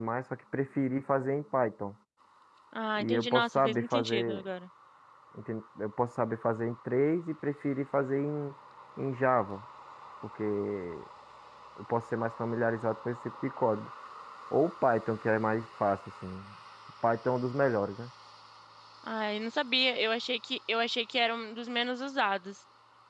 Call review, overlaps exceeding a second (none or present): present